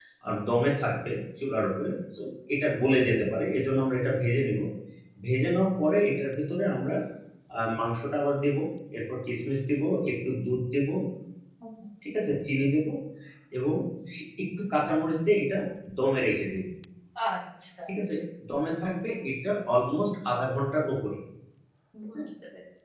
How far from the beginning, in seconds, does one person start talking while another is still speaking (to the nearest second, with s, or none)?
none